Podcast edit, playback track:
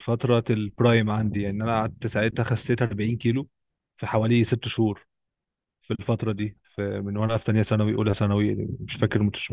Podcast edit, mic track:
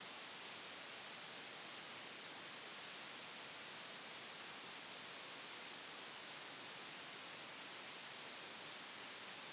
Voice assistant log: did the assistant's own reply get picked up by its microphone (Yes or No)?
No